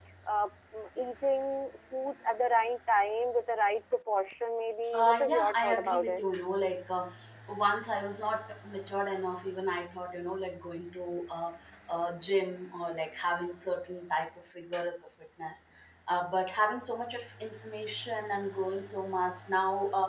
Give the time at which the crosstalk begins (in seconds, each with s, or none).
4.9 s